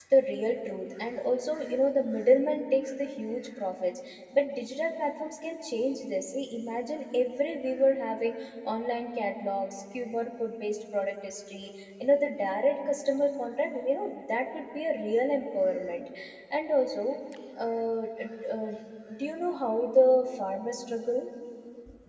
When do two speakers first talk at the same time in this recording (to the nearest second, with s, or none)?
none